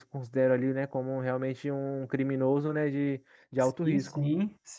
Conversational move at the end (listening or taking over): taking over